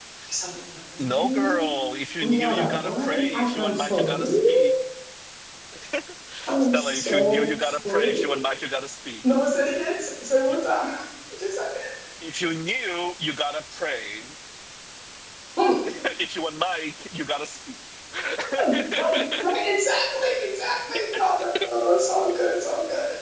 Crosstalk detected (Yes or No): Yes